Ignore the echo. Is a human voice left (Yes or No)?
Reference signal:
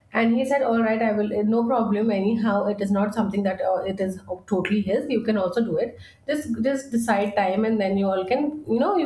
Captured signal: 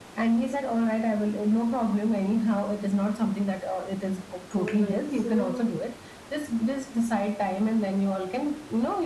Yes